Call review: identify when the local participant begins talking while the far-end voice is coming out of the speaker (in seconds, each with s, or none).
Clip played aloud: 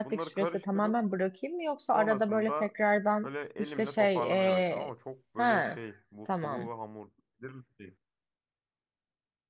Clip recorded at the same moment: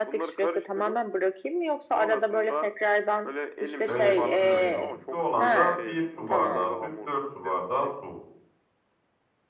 3.9 s